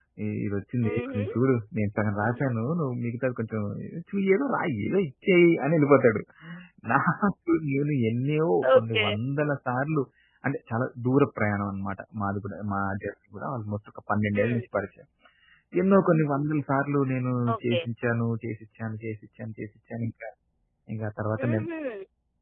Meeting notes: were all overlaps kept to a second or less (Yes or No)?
Yes